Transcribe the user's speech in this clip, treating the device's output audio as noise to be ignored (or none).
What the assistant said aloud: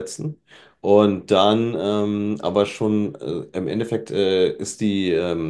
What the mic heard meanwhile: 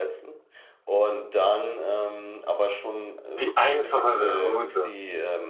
die einfachere Route.